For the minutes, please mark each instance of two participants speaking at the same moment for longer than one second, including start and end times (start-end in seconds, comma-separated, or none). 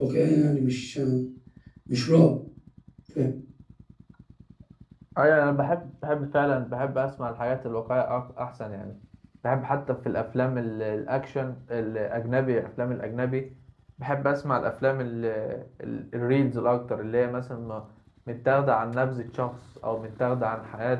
none